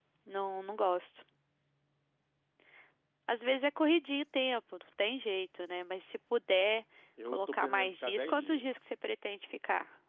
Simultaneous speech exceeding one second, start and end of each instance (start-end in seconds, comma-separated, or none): 7.3-8.8